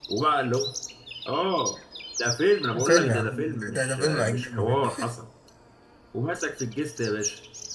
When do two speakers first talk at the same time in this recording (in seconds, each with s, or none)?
2.7 s